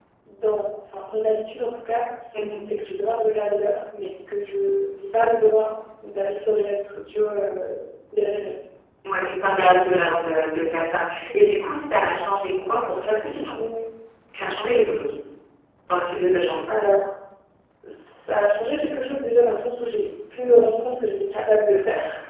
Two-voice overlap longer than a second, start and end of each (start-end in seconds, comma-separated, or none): none